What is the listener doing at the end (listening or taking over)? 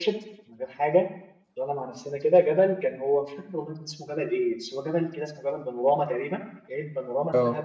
listening